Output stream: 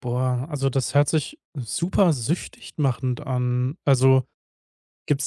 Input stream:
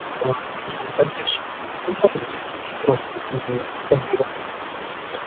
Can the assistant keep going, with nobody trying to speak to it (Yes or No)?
Yes